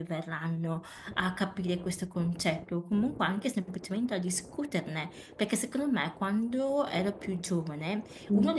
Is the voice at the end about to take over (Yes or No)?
No